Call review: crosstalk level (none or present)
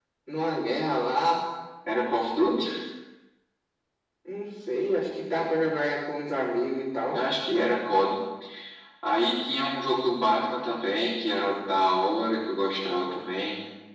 none